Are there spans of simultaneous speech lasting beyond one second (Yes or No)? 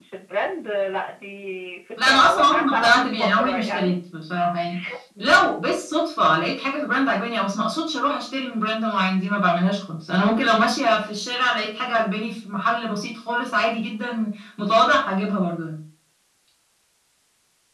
Yes